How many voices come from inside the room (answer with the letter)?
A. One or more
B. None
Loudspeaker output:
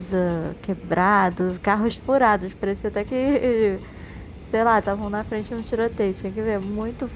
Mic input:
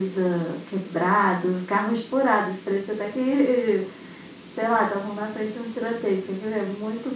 B